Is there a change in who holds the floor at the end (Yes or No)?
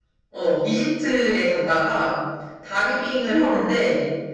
No